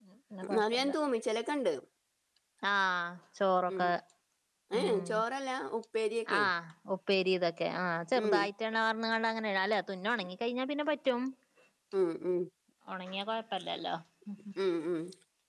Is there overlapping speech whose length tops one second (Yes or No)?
No